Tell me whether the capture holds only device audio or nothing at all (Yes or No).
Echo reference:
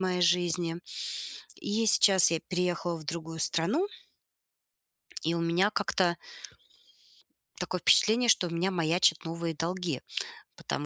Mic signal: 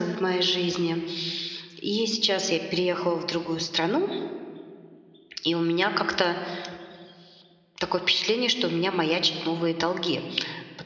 Yes